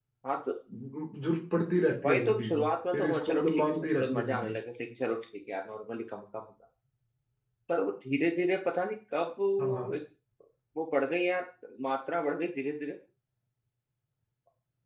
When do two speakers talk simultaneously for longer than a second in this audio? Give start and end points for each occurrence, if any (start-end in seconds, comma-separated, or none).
2.0-4.5